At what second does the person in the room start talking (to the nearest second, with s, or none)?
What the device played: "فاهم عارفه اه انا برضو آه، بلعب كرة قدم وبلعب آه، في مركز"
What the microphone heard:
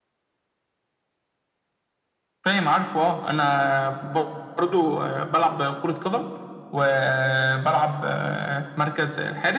none